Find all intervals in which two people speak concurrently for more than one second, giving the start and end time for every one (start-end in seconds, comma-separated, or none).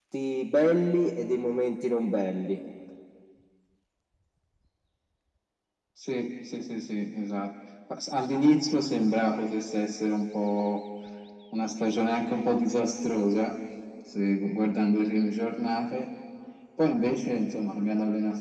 none